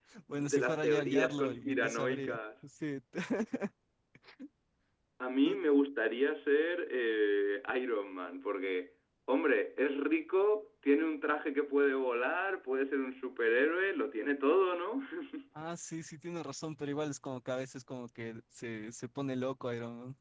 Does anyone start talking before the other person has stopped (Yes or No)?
Yes